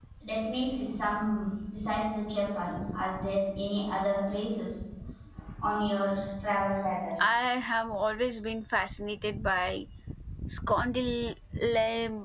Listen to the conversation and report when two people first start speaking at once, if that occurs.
none

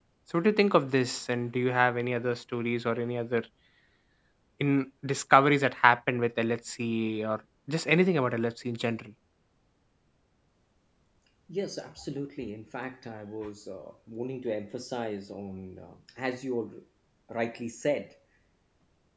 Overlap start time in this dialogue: none

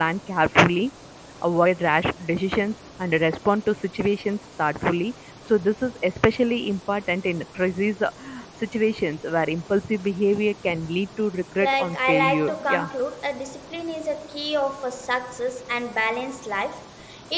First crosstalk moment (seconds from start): 12 s

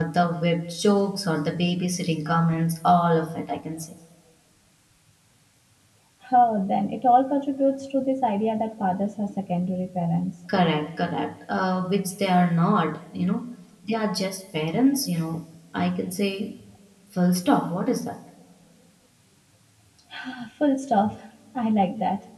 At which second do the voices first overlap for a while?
none

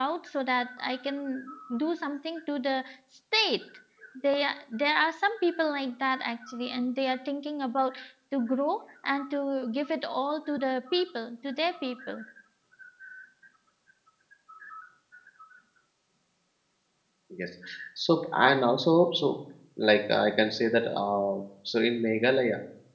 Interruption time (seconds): none

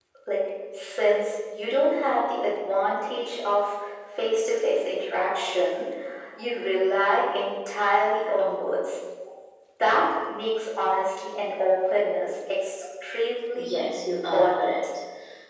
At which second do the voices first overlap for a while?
14 s

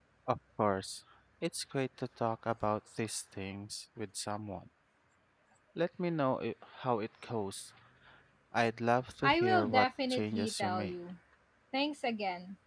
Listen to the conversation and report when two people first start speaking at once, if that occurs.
9 s

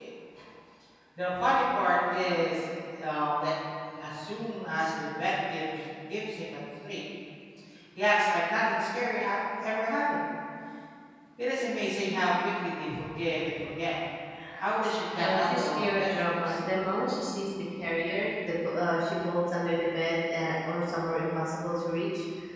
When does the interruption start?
15 s

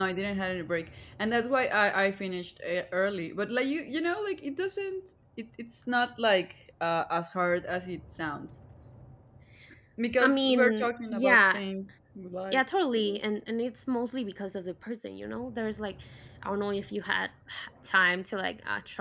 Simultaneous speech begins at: 10 s

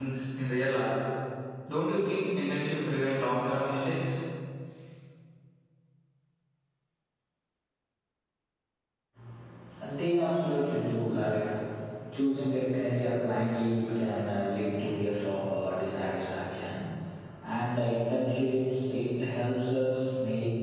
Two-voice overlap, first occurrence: none

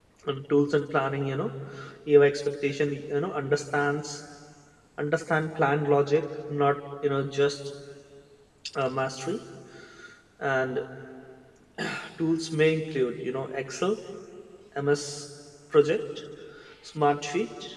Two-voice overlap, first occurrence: none

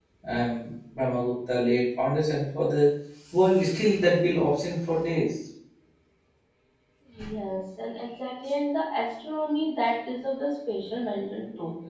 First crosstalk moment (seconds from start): none

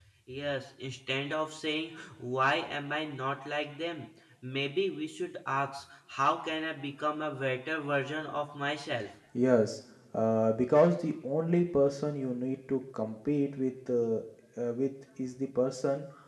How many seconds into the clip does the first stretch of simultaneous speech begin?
none

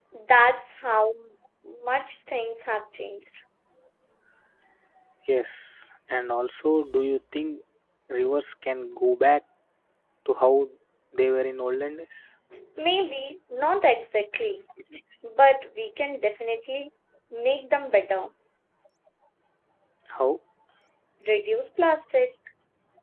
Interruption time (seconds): none

